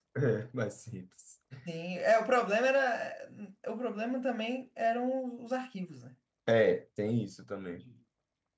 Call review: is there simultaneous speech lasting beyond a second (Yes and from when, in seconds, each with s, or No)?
No